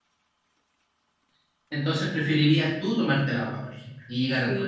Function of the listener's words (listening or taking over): taking over